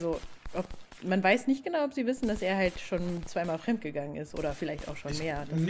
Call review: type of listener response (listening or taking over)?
taking over